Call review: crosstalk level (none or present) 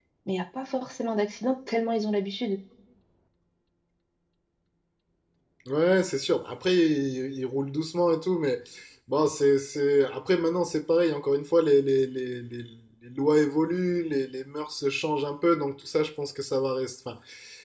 none